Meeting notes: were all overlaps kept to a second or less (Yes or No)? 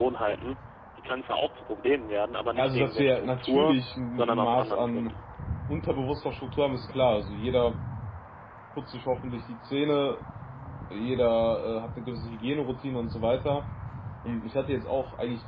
No